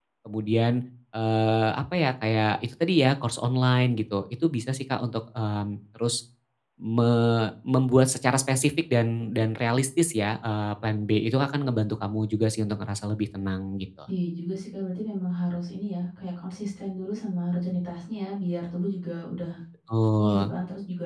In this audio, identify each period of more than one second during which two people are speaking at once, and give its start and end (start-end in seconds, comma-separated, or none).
none